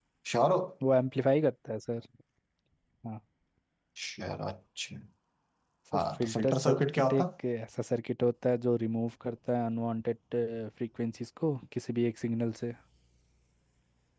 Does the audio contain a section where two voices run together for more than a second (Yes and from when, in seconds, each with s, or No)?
Yes, from 6.0 s